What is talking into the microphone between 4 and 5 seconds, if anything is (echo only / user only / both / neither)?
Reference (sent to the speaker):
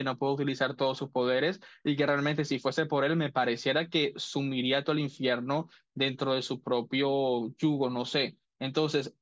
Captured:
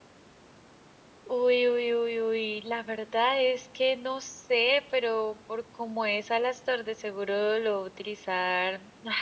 user only